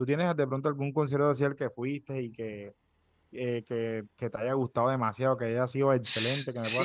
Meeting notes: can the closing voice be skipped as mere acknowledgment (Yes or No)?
No